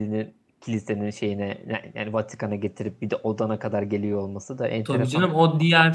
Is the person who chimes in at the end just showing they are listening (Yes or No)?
No